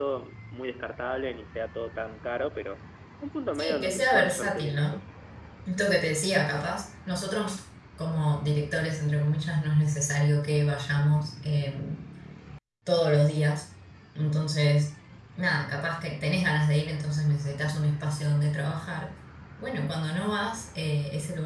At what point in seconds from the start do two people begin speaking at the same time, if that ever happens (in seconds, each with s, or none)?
3.5 s